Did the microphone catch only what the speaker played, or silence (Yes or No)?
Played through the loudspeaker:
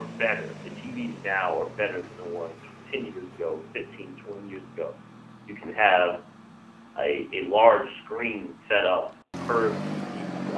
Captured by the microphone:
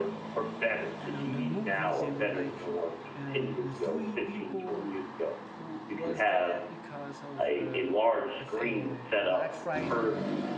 No